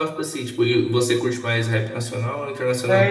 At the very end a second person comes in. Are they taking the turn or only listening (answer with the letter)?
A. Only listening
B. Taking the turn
B